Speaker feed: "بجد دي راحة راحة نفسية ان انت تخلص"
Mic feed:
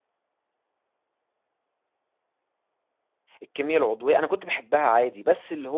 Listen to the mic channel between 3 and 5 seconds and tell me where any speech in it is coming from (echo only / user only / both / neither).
user only